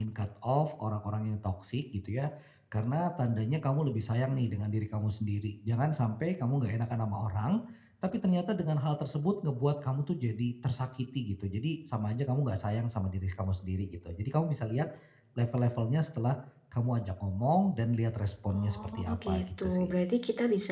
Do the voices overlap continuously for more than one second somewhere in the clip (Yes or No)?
Yes